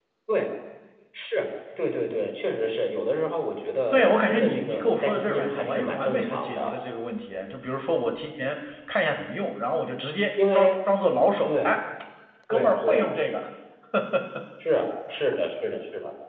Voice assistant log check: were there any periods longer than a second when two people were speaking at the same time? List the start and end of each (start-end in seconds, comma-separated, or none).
3.9-6.8